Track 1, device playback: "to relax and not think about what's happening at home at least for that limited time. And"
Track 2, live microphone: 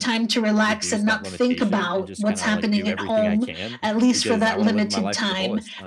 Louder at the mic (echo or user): echo